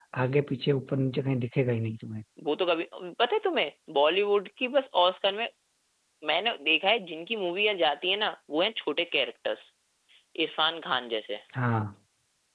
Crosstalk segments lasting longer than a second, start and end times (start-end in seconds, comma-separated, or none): none